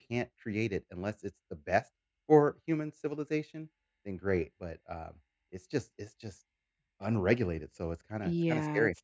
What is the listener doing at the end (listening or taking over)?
taking over